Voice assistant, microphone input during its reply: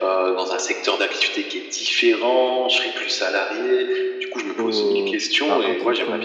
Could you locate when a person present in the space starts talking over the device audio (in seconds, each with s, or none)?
4.6 s